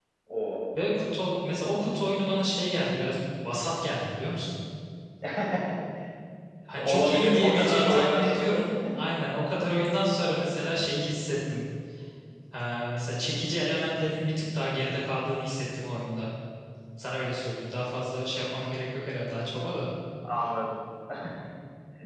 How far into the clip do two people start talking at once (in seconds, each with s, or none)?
6.8 s